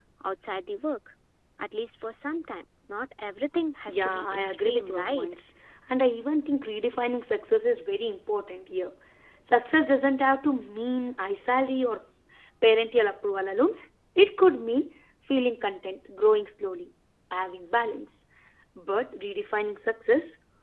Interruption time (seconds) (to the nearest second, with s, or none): 4 s